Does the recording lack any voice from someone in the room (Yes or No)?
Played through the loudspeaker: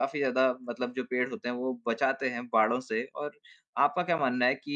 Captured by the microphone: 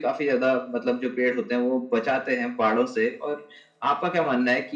Yes